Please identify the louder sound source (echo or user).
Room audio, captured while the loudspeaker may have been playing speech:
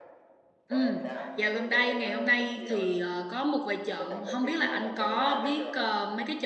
user